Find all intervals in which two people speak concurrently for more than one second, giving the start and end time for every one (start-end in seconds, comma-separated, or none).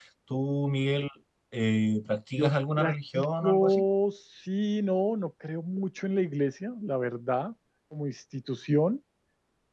2.4-3.8